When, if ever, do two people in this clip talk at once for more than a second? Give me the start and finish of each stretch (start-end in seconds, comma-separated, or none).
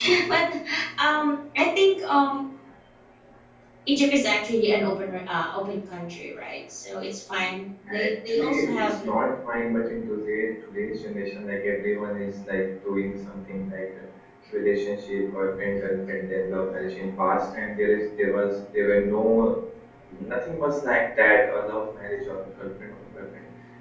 8.0-9.2